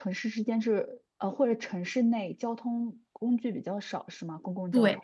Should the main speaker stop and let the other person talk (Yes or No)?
Yes